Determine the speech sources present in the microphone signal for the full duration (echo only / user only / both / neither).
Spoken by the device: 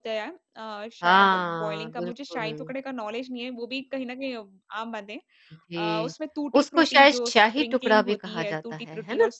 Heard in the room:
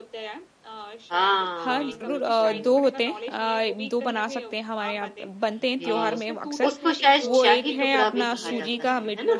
both